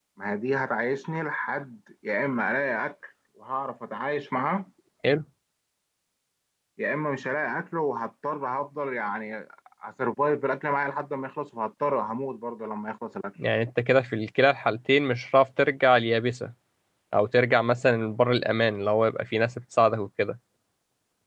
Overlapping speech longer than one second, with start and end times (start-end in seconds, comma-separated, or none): none